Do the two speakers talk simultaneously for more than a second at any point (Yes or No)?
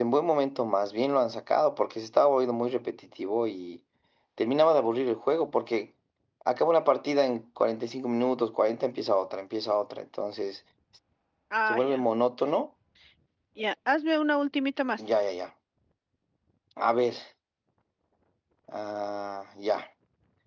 No